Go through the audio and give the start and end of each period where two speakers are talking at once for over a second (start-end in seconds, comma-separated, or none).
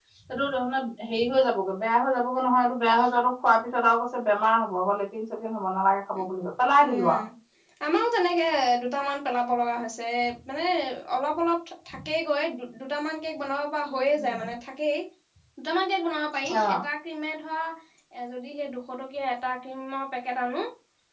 none